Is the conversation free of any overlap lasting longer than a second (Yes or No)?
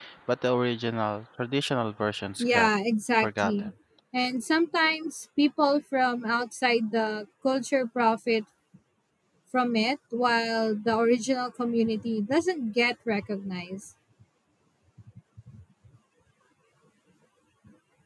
Yes